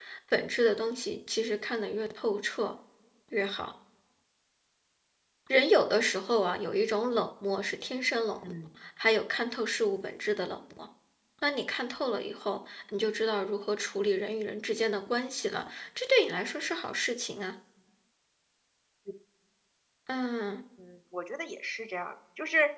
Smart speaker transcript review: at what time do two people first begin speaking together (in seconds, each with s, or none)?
none